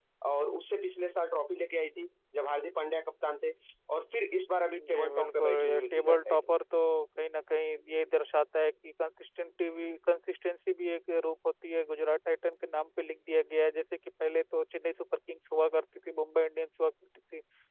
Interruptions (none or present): present